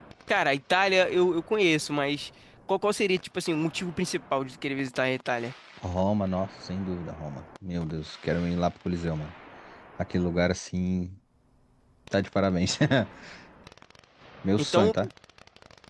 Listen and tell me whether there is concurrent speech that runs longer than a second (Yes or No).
No